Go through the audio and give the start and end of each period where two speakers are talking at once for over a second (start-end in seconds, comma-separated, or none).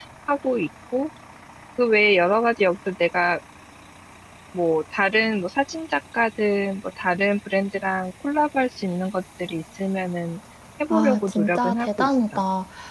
10.9-12.4